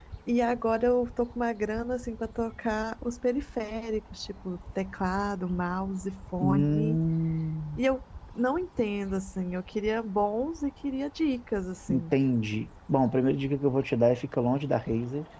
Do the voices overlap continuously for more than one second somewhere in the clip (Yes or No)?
No